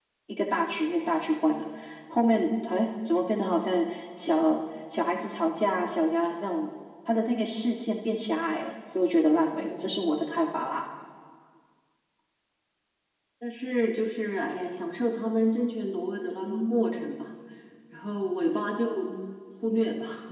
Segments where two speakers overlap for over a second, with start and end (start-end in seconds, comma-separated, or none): none